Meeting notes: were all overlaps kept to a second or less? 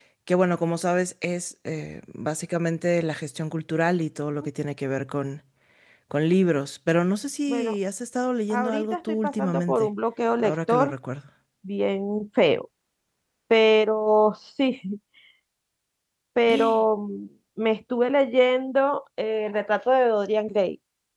No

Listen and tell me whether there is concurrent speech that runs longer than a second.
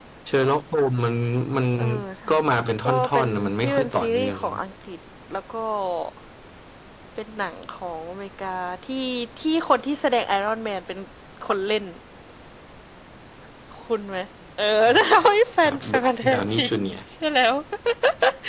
Yes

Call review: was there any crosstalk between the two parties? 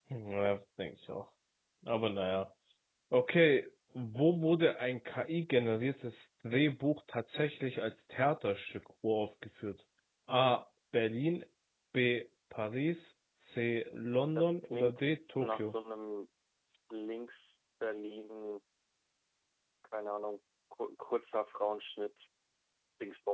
Yes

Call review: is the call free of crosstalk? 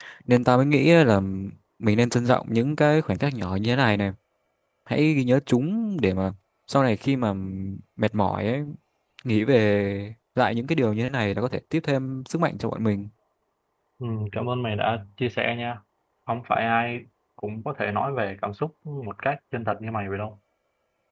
Yes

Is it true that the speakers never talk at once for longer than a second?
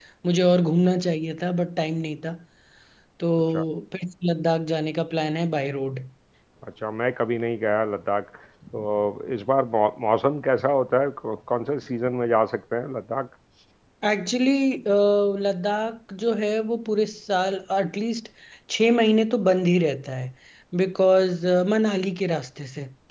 Yes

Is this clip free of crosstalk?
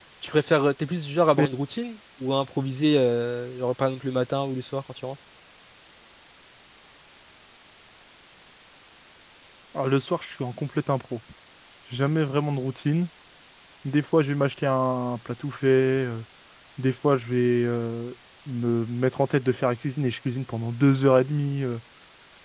Yes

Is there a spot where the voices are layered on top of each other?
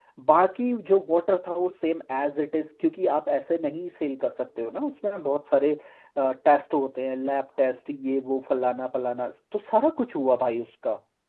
No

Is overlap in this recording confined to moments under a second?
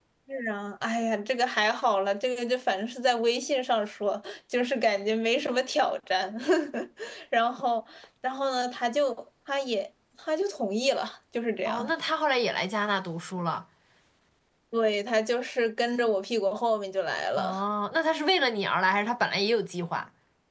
Yes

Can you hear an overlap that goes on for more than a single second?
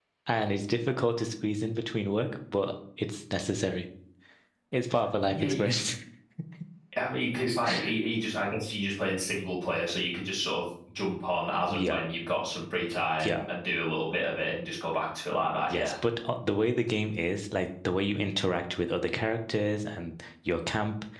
No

